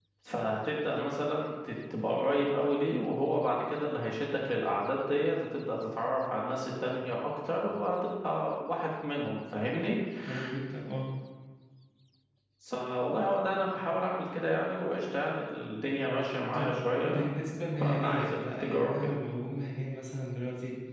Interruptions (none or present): present